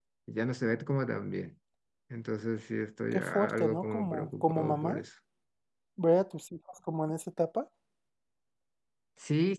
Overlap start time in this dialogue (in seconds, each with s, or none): 3.1 s